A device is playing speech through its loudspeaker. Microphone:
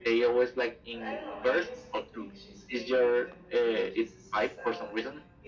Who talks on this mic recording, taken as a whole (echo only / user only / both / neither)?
both